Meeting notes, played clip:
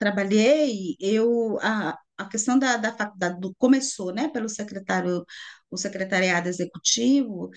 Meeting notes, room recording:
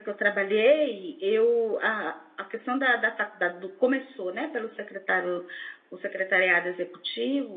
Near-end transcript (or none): none